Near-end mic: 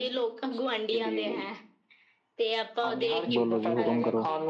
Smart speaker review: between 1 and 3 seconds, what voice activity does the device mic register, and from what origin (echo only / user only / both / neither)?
echo only